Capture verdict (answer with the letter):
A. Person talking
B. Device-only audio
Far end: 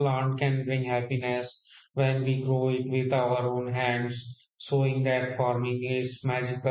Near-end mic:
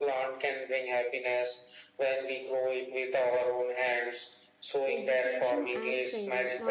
A